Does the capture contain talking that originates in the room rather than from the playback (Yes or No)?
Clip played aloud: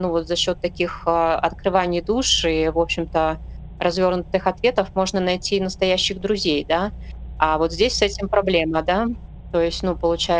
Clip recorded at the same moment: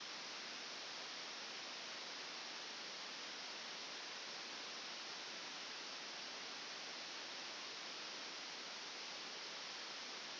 No